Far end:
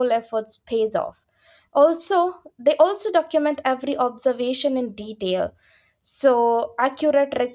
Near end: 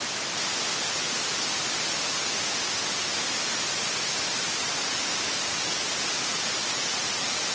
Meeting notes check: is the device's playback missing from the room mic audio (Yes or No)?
Yes